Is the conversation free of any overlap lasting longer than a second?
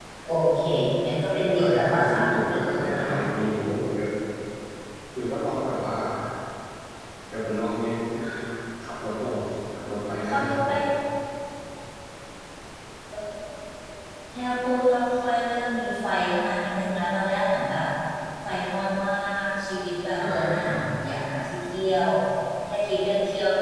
No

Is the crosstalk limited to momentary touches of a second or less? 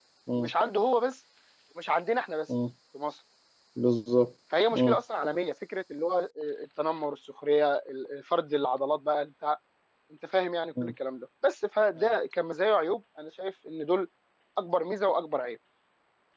Yes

